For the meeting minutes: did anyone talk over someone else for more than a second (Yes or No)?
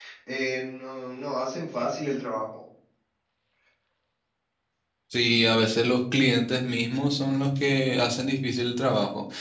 No